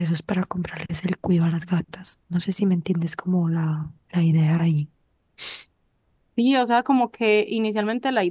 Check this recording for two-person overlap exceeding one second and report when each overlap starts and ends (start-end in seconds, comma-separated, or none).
none